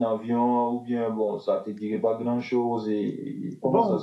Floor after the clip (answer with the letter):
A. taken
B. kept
A